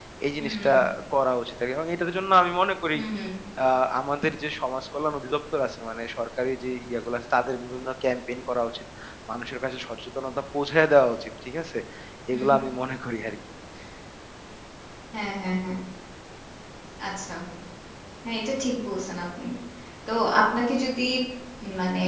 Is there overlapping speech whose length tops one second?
No

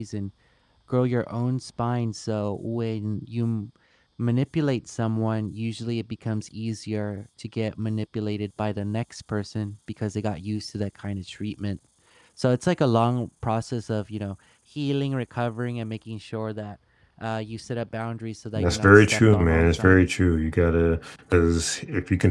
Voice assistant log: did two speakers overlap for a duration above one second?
Yes, from 18.6 s

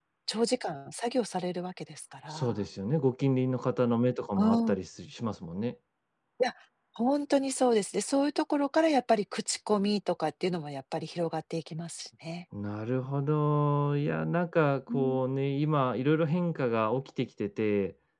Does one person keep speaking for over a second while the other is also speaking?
No

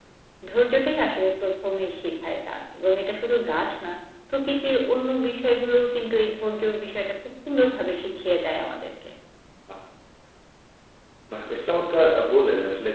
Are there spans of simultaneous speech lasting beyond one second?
No

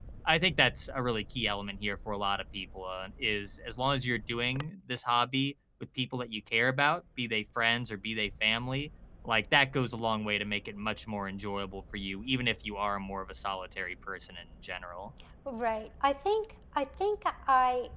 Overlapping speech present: No

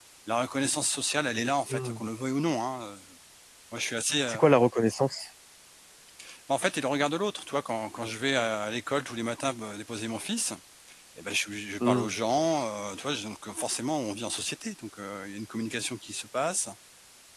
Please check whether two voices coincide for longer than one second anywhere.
No

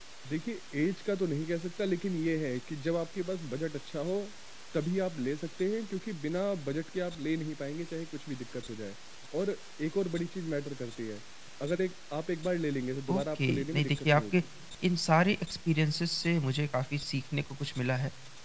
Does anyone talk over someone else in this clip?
Yes, from 13.1 s

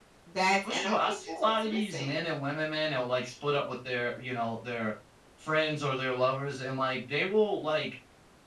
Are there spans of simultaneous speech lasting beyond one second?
Yes, from 0.6 s

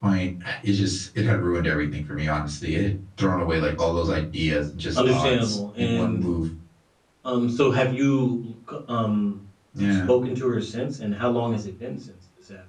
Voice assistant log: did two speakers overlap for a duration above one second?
Yes, from 5.0 s

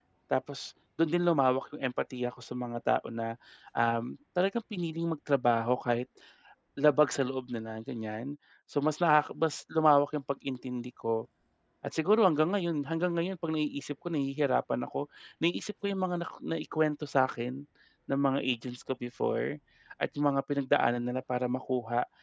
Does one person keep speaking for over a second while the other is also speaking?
No

